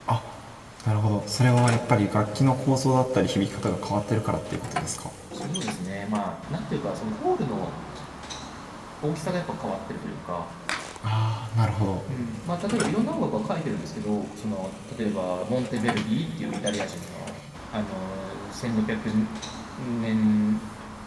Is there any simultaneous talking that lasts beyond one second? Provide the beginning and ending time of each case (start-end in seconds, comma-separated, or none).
none